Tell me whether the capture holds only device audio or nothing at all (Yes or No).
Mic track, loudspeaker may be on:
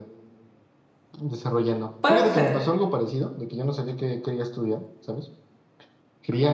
No